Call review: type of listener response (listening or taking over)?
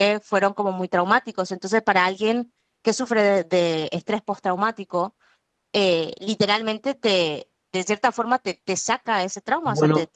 taking over